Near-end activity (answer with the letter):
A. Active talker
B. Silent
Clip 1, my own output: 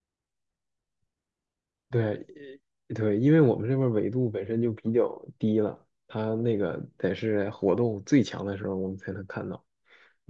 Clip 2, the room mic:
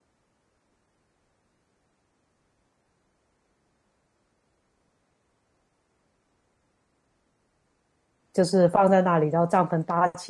A